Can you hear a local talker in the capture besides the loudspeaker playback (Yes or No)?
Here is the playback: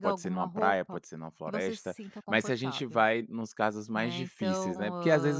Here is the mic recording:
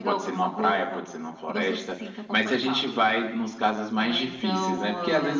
No